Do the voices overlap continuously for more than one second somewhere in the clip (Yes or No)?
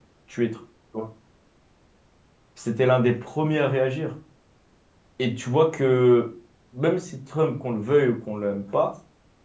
No